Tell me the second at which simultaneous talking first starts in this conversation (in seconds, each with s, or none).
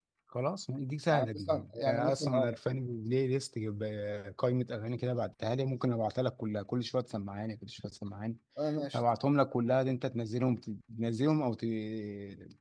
1.1 s